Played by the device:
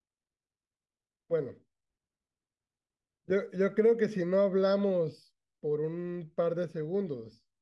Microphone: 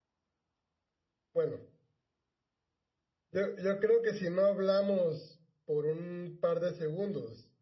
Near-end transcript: none

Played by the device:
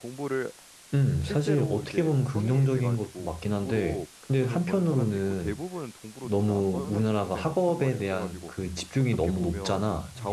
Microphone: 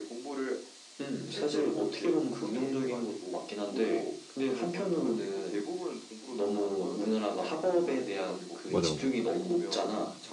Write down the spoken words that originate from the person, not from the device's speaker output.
맞아 맞아.

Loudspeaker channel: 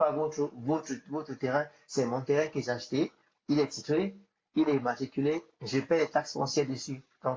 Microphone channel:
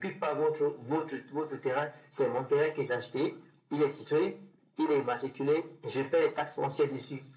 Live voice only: none

